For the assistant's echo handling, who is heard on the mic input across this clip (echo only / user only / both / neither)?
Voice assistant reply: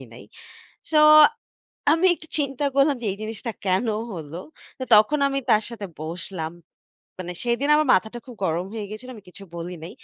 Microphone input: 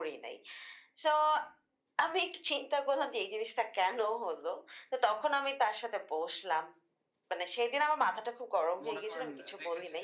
both